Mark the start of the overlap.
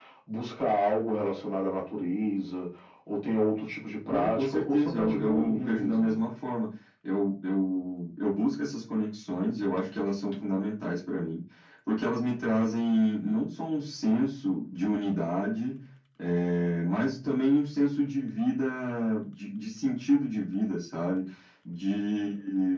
4.1 s

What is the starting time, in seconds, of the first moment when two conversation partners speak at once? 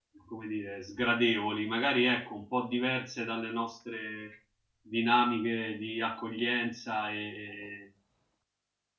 none

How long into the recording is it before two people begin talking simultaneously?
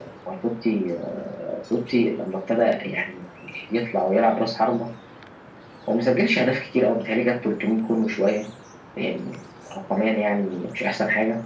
none

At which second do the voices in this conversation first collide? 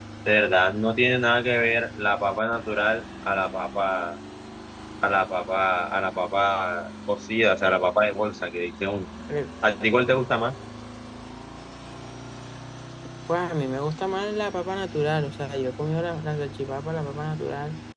none

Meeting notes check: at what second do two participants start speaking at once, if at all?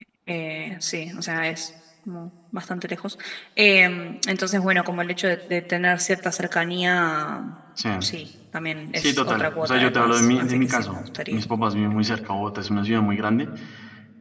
8.9 s

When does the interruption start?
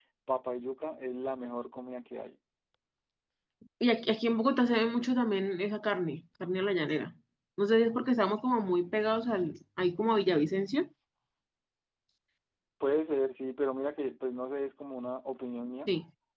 none

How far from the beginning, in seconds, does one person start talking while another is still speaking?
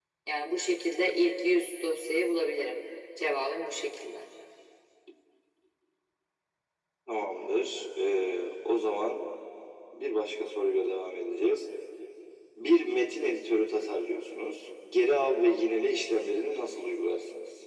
none

